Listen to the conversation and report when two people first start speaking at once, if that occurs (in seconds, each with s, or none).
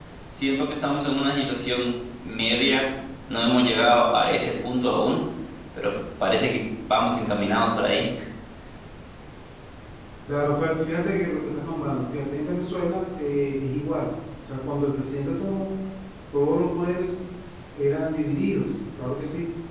none